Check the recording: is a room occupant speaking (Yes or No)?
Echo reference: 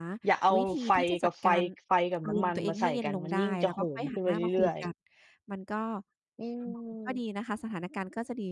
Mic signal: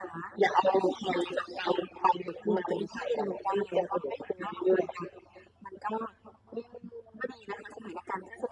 No